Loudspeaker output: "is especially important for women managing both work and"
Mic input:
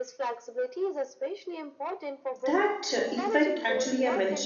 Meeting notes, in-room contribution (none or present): present